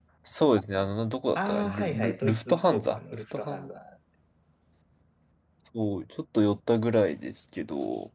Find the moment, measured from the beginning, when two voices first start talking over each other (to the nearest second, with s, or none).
1 s